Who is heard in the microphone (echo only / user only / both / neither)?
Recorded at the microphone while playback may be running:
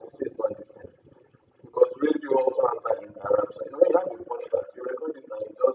echo only